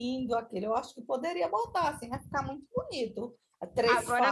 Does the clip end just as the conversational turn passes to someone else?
Yes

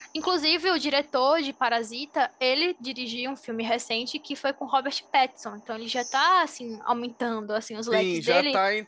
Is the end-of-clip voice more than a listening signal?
Yes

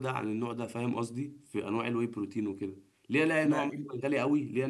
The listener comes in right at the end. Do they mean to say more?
No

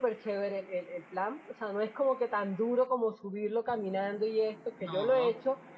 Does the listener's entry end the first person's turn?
No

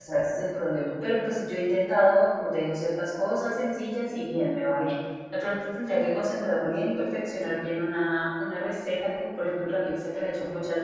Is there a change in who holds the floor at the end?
No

